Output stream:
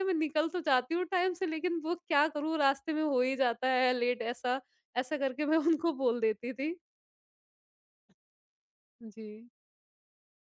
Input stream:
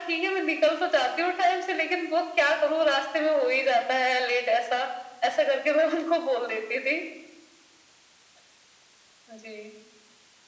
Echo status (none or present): present